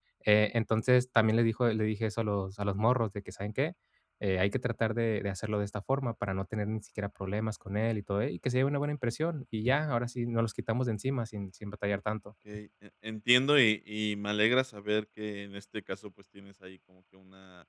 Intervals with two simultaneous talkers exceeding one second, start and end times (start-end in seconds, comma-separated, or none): none